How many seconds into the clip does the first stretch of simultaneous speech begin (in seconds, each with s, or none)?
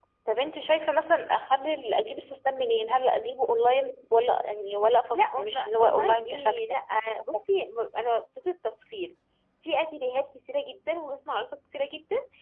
5.1 s